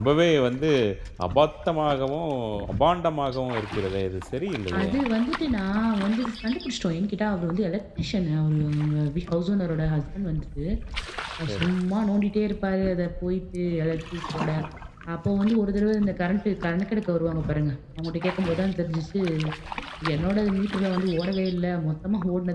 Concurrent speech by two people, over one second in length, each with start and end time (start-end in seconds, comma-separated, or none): none